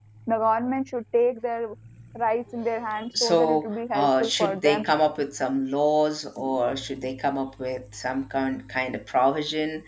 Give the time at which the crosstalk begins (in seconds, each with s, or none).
3.2 s